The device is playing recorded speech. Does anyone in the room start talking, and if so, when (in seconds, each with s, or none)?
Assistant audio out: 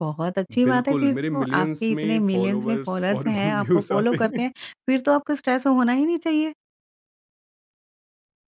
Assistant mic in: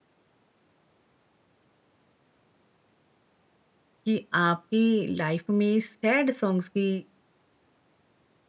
4.1 s